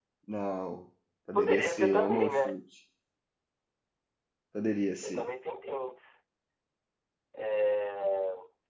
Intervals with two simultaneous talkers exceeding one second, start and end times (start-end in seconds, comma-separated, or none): 1.3-2.6